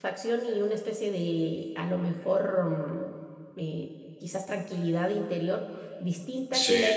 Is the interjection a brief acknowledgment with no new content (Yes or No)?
Yes